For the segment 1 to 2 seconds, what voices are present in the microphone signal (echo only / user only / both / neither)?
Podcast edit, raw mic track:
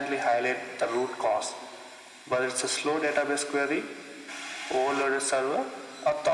echo only